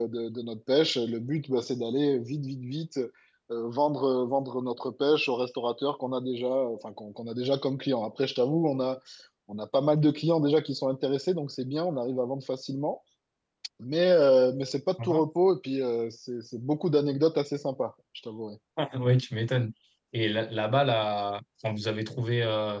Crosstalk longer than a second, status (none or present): none